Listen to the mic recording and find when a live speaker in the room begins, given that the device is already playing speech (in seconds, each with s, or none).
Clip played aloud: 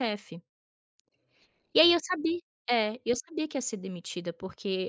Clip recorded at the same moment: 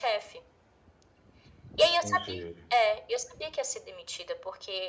2.0 s